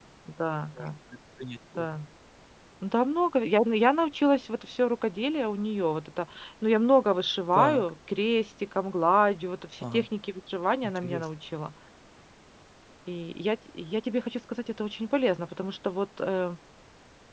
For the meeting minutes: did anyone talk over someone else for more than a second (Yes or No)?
No